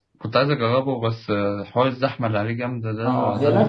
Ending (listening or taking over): taking over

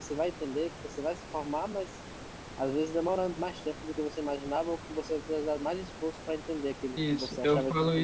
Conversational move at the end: taking over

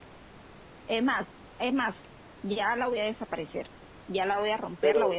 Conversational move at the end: listening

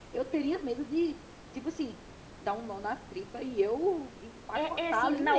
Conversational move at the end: taking over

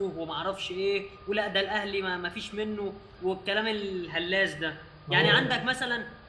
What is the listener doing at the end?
listening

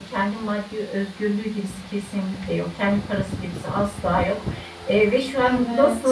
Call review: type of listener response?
listening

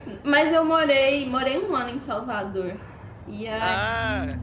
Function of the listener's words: listening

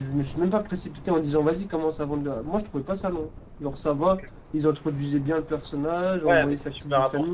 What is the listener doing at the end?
taking over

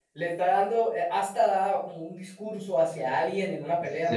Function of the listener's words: taking over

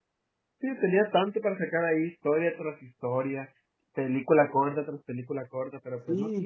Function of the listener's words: taking over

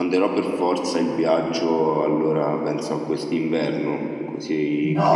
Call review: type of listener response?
taking over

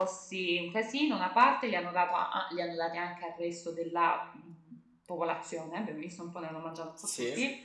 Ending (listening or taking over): listening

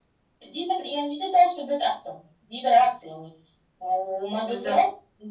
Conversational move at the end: listening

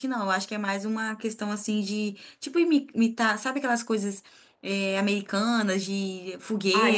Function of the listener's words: taking over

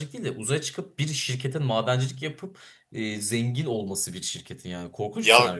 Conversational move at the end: taking over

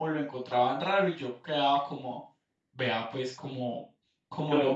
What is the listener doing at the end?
taking over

